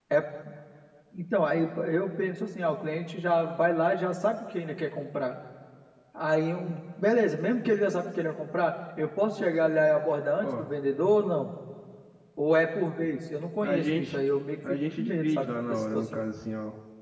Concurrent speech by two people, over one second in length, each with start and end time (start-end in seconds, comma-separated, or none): 14.7-16.0